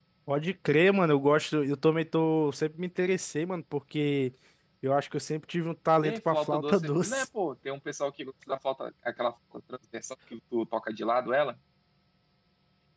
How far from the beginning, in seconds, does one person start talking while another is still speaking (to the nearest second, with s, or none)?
6 s